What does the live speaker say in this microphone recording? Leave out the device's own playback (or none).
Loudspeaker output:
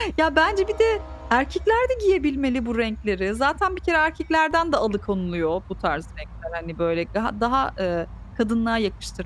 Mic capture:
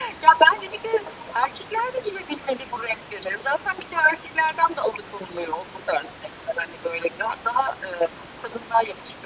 none